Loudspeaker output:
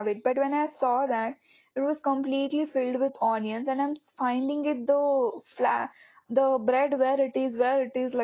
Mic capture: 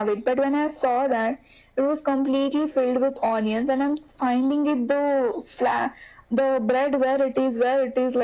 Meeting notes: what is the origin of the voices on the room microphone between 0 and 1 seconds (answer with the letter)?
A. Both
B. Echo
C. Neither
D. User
B